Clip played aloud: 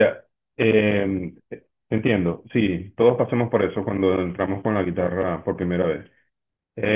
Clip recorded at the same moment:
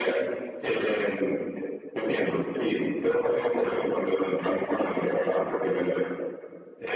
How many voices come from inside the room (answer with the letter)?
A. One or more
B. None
B